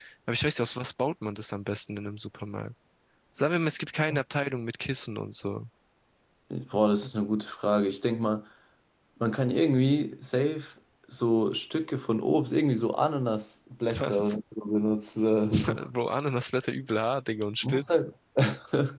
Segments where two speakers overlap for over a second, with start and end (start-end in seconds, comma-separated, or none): none